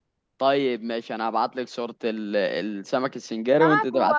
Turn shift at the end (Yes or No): Yes